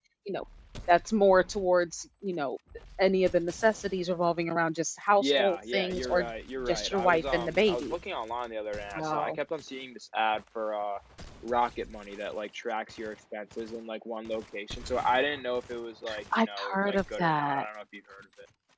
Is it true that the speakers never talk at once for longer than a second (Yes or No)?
No